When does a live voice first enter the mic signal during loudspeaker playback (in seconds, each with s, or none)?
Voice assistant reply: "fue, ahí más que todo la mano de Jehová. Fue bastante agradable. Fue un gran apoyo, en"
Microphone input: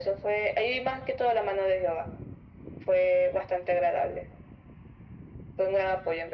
none